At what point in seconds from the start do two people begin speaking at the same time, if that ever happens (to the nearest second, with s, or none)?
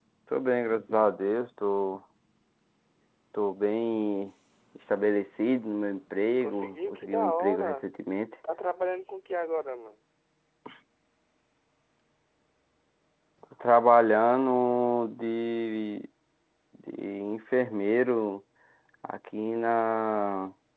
6 s